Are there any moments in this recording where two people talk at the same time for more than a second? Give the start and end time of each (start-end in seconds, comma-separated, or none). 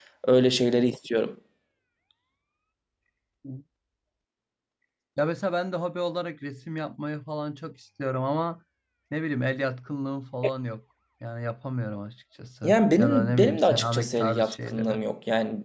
12.6-15.0